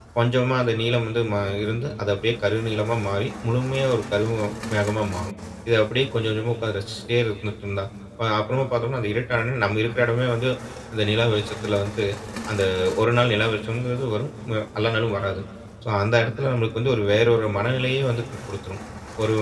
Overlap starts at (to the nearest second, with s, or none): none